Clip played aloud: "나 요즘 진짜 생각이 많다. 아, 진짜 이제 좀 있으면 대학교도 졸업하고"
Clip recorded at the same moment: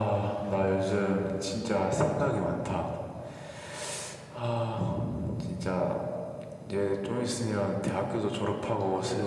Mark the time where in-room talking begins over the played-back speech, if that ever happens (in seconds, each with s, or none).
8.3 s